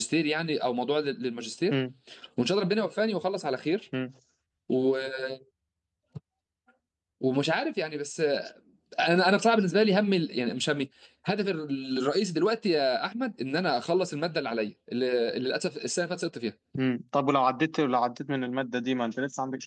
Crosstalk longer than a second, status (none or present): none